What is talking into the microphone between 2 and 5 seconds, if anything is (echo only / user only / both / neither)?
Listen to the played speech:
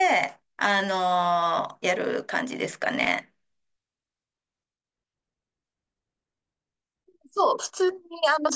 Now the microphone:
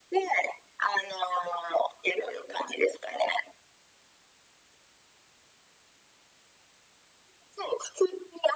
echo only